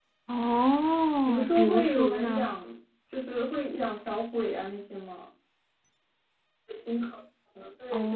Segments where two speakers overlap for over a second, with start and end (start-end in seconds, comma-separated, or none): 1.2-2.6